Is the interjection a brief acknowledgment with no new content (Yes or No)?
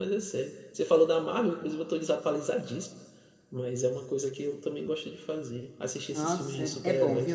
No